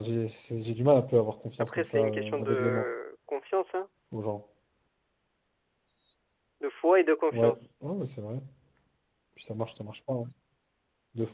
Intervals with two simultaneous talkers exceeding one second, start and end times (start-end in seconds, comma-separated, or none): 1.6-2.9